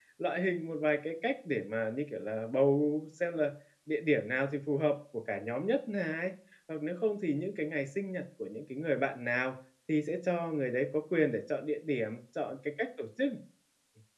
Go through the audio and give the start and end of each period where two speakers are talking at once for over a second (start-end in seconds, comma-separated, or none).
none